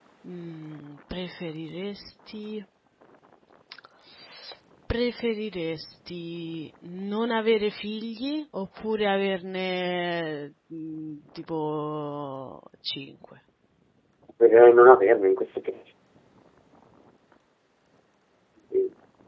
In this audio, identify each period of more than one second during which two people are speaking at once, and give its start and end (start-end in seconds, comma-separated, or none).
none